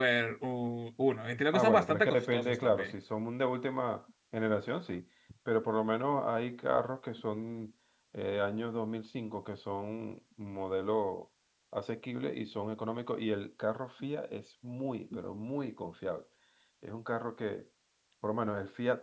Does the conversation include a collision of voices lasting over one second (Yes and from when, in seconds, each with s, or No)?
Yes, from 1.5 s